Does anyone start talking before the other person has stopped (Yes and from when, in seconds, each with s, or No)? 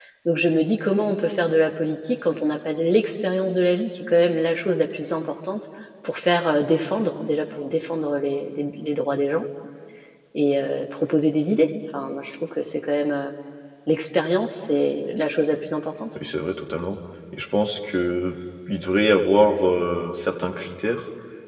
No